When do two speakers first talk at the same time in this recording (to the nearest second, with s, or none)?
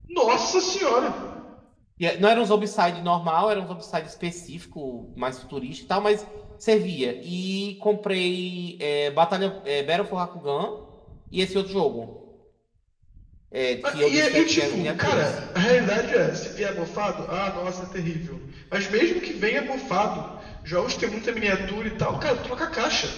14 s